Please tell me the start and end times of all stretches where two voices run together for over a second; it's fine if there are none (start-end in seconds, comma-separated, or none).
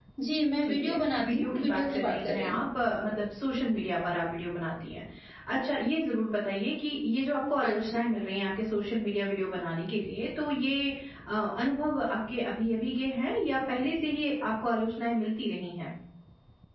0.6-2.7